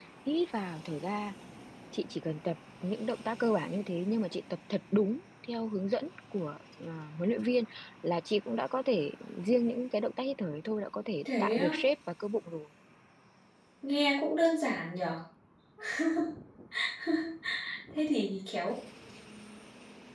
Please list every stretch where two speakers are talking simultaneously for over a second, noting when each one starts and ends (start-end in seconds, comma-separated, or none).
none